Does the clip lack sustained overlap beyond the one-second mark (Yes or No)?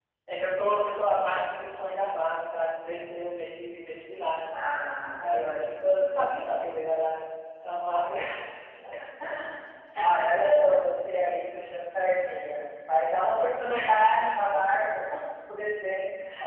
Yes